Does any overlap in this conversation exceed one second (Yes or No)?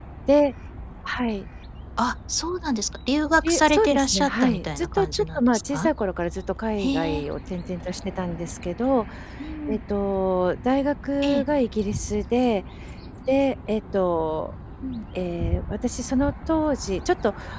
Yes